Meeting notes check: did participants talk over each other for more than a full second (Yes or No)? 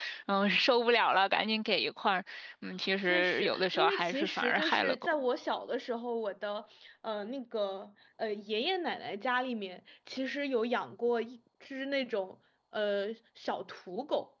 Yes